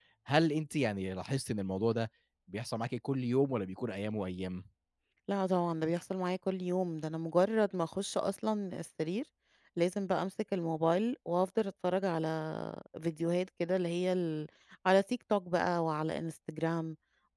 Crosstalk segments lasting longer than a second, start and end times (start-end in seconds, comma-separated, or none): none